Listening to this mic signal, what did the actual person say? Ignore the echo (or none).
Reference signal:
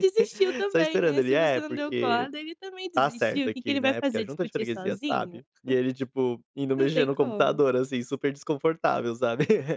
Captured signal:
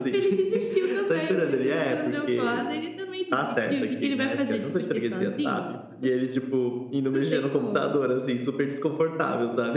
none